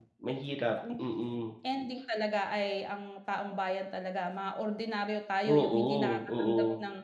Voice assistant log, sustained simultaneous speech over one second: present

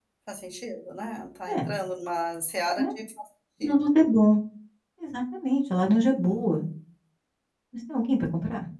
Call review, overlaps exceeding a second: none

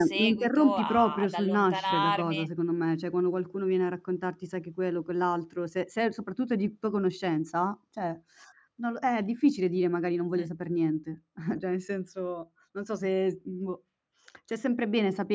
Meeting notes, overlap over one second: present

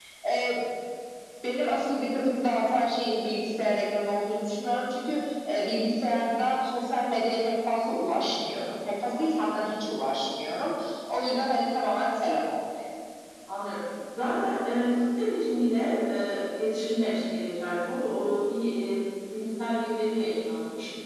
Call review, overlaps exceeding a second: none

